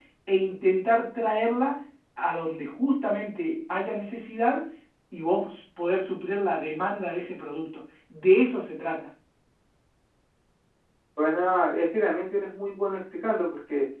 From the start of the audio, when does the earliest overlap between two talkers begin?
none

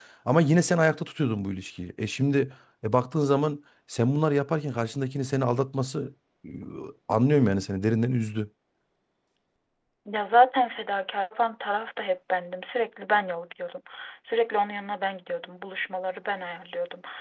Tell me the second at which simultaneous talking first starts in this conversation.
none

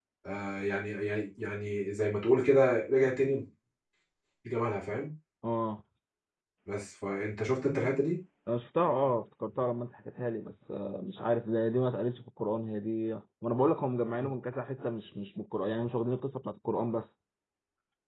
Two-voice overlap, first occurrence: none

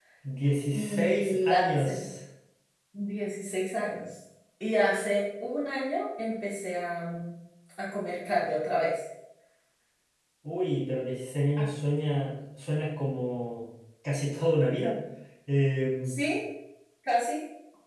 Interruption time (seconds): 0.7 s

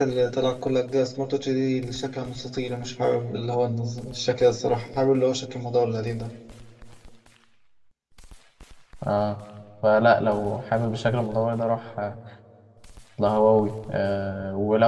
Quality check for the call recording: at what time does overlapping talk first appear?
none

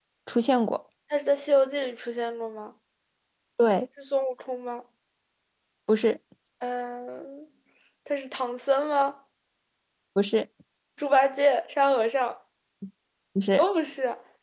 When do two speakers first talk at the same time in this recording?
none

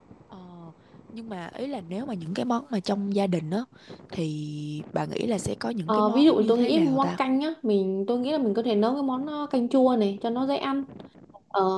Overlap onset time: 5.9 s

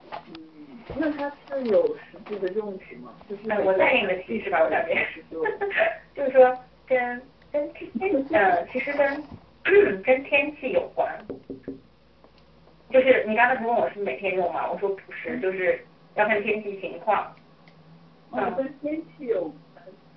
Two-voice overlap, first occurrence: 3.5 s

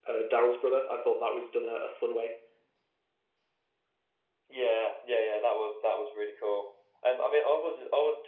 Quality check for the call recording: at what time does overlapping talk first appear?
none

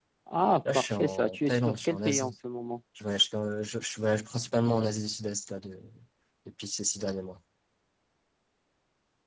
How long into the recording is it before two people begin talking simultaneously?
0.7 s

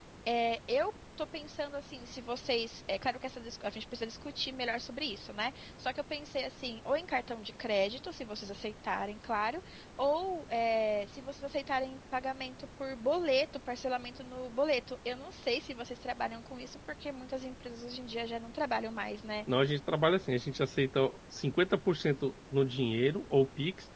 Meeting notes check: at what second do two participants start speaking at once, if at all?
none

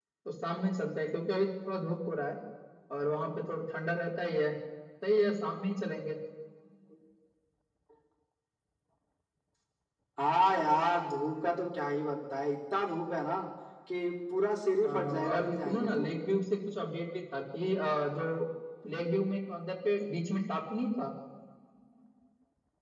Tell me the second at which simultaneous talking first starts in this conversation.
14.8 s

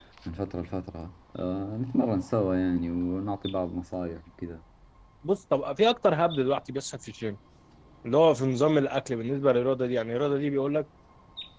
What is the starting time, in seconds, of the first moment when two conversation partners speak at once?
none

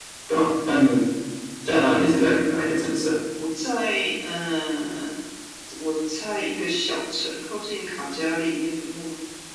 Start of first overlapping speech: none

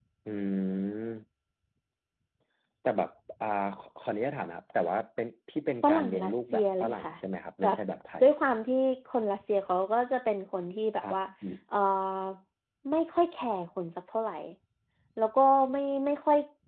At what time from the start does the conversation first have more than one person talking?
5.8 s

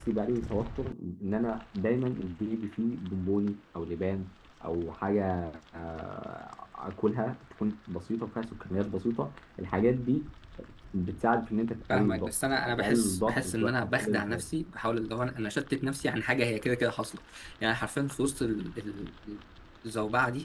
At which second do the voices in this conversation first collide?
11.9 s

